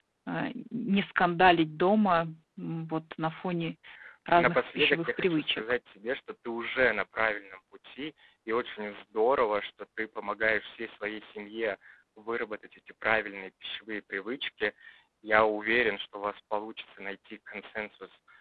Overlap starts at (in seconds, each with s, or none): 4.3 s